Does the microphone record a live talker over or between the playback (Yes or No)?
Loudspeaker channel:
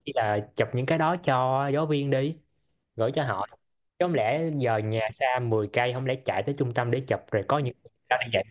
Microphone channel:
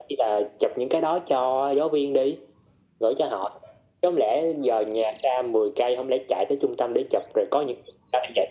No